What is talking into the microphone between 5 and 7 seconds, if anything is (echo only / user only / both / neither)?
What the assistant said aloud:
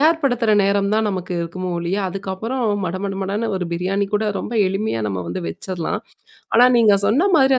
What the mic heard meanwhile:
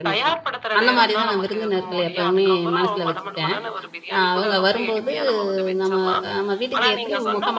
both